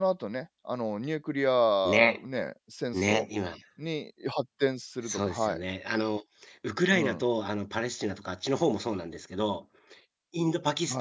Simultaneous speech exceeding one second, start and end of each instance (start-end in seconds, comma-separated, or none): none